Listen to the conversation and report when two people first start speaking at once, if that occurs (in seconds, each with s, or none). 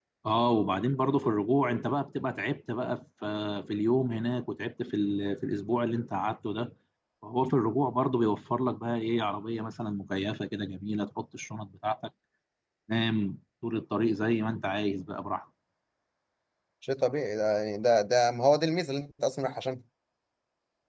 none